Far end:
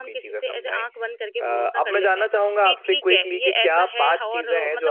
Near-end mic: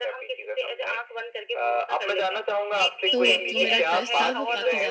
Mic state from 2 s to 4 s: both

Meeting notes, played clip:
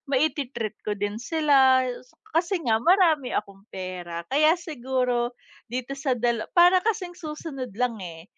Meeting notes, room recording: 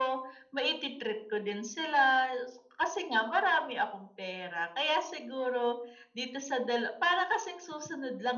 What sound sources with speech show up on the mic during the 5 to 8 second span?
echo only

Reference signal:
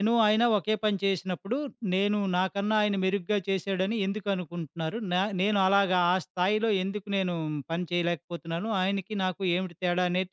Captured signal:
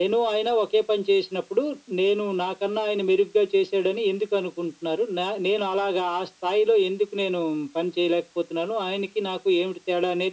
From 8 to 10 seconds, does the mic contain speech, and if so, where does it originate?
echo only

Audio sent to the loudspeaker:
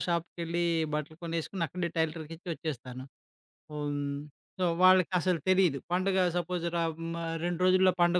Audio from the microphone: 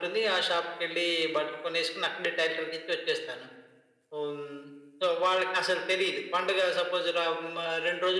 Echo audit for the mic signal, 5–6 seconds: echo only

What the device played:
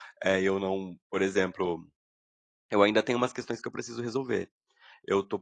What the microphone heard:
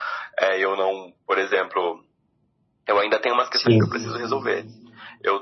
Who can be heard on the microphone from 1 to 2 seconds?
echo only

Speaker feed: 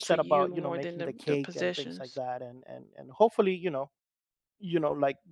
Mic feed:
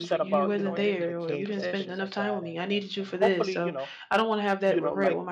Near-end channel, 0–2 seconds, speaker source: both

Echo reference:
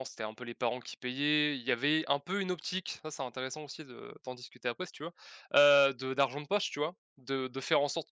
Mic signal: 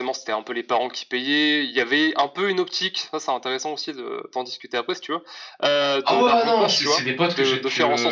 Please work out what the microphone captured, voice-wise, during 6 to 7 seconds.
both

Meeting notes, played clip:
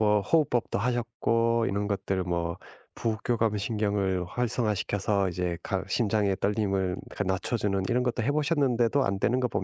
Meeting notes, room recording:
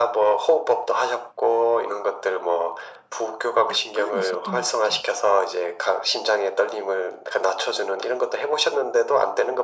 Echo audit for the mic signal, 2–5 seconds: both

